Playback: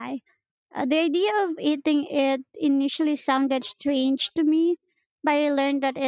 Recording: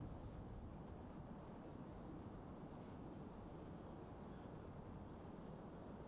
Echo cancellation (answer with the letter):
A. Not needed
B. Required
A